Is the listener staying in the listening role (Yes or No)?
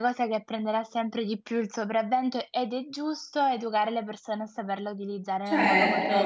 No